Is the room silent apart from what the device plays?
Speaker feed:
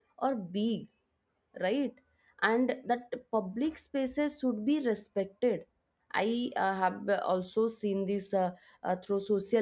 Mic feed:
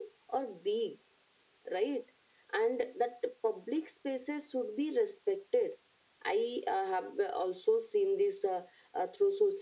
Yes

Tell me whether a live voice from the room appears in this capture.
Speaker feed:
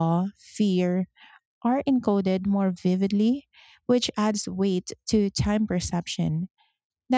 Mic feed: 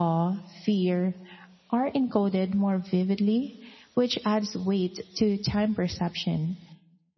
No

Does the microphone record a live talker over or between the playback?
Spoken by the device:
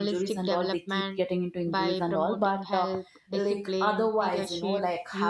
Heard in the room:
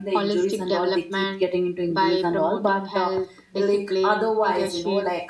No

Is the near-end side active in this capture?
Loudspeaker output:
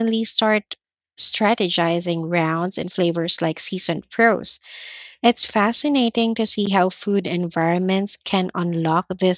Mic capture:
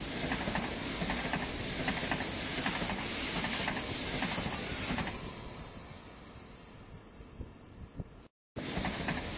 No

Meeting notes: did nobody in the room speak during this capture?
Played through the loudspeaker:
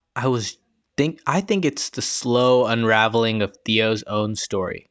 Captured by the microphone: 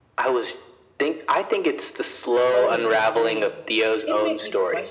No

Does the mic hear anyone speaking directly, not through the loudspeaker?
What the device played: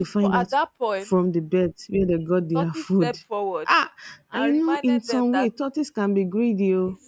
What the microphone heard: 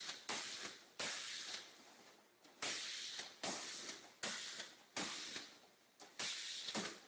No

